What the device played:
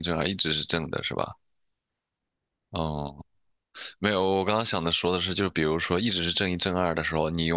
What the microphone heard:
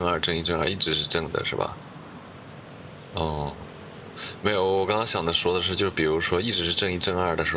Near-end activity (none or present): none